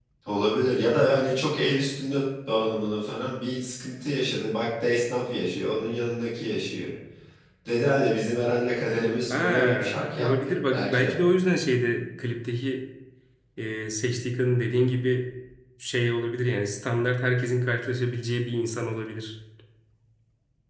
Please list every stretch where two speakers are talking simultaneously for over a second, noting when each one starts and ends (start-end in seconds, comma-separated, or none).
9.3-11.2